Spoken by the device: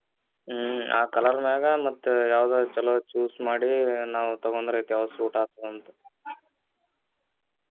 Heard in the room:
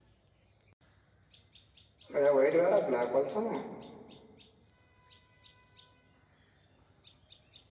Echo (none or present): none